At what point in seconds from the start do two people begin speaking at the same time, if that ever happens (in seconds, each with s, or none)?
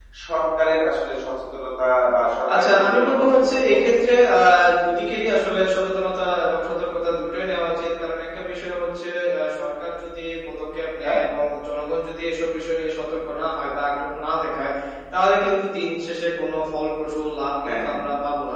2.6 s